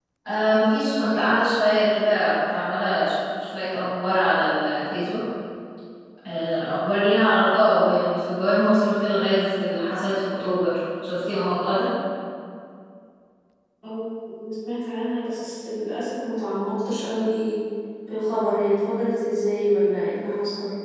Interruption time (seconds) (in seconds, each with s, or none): none